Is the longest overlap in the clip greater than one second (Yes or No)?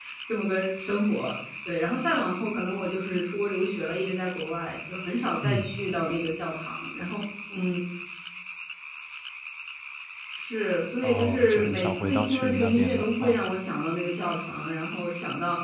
Yes